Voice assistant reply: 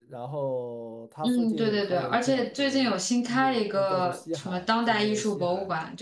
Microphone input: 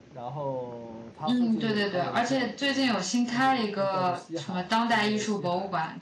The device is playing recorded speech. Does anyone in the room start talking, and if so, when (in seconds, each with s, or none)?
none